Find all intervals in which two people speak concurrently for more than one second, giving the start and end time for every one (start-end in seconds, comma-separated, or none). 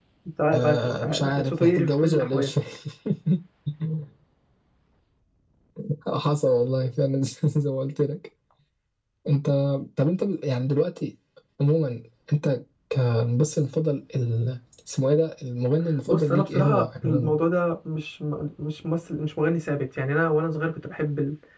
0.5-2.5, 16.1-17.4